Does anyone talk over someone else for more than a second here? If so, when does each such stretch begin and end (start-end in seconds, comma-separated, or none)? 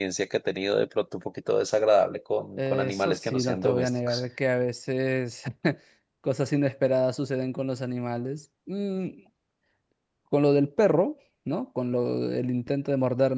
2.6-4.2